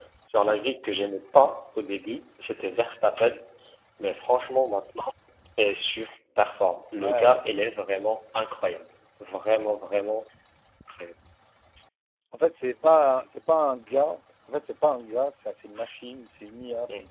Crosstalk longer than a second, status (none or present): none